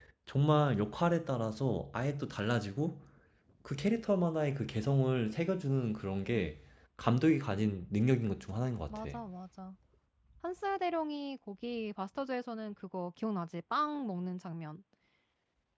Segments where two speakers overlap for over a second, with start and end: none

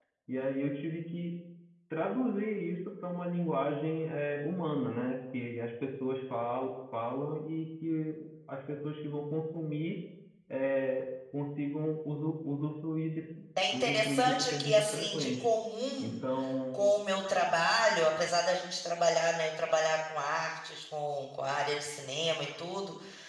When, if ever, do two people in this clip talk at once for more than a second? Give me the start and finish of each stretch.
13.7-15.4

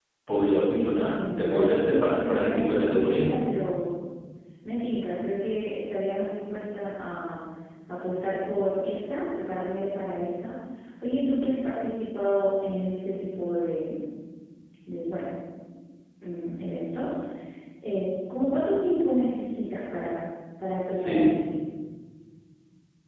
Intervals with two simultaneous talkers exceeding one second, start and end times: 0.6-3.3

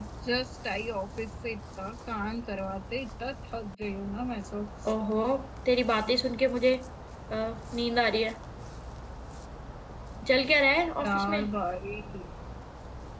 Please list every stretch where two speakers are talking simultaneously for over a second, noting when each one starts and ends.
none

